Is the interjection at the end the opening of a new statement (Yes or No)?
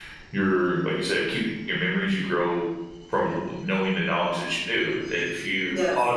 No